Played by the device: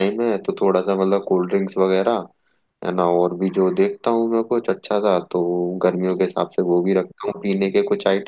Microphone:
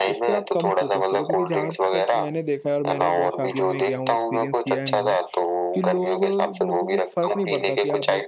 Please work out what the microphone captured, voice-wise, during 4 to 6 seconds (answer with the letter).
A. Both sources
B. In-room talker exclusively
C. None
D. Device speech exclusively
A